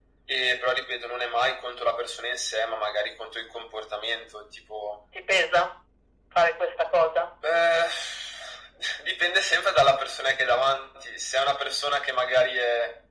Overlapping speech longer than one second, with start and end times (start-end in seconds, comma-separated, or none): none